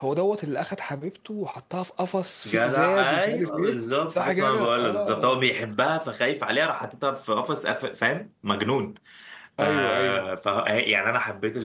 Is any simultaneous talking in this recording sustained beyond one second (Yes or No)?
Yes